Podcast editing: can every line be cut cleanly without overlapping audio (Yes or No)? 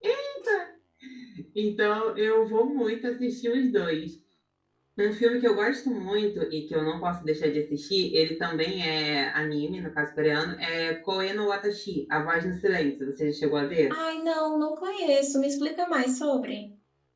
Yes